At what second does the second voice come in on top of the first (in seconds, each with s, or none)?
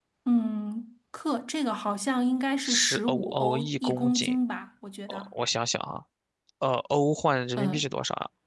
2.6 s